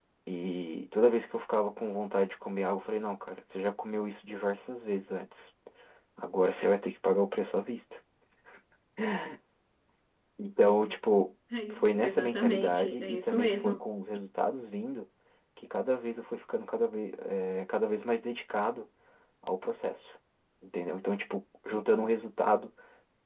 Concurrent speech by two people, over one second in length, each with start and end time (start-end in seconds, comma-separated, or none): 11.7-13.8